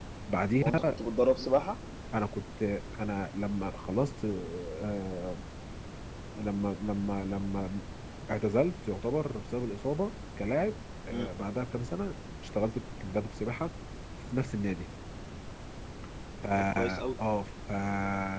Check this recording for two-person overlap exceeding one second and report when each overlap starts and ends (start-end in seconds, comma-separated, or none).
none